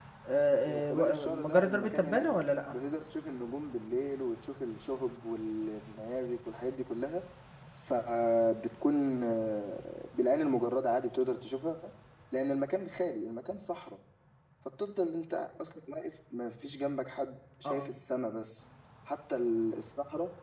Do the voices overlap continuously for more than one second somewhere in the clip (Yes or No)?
Yes